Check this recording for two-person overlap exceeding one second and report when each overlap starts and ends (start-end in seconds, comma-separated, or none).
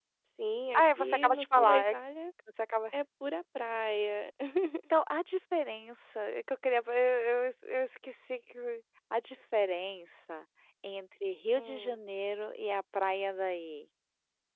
0.7-1.9